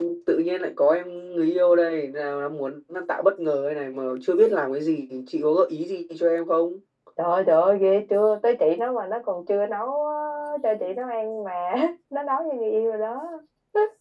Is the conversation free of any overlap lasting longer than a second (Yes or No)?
Yes